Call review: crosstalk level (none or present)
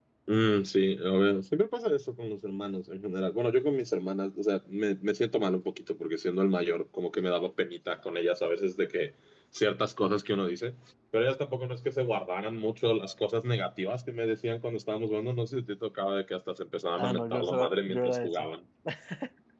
present